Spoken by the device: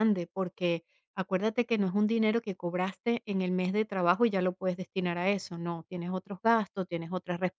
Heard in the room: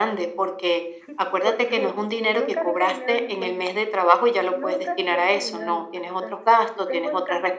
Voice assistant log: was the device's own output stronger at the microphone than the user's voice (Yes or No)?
Yes